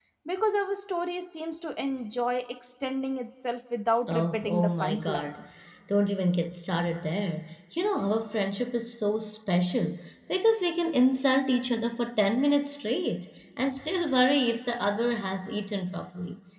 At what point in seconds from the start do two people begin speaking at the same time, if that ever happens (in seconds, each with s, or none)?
4.1 s